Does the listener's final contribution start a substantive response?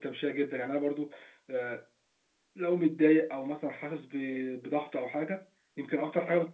No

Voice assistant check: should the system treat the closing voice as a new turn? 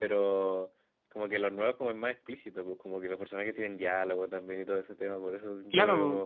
No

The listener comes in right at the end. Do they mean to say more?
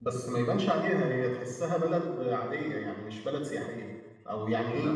No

